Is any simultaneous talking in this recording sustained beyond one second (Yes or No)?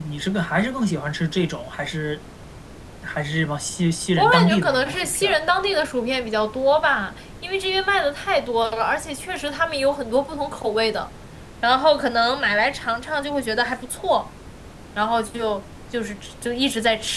Yes